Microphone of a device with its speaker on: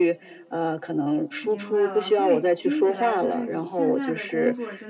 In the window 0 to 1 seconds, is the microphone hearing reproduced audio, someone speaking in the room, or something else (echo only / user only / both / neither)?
echo only